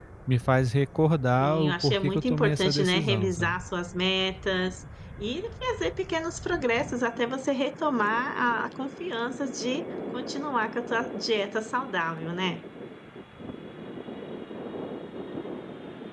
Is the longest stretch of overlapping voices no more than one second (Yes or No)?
No